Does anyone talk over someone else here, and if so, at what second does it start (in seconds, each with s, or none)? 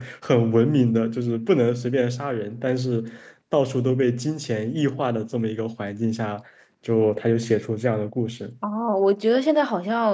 none